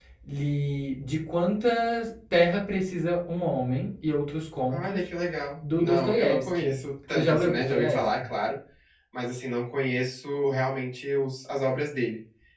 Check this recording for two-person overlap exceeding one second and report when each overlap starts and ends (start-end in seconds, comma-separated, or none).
5.8-8.3